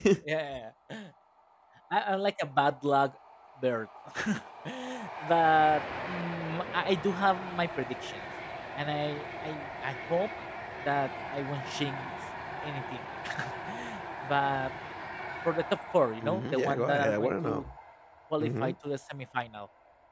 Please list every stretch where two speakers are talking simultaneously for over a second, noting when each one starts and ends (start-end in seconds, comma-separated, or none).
16.2-17.6